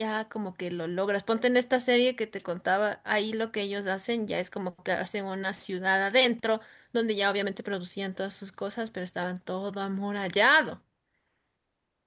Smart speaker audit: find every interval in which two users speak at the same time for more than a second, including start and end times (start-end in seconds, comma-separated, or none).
none